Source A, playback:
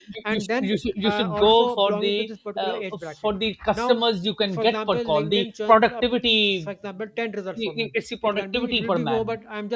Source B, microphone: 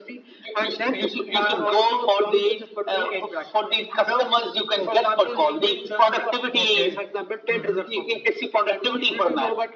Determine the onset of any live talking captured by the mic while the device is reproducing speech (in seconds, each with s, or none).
6.5 s